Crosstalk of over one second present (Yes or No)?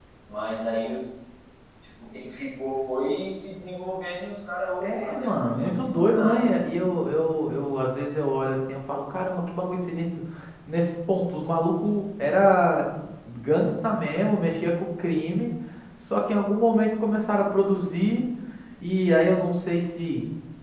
Yes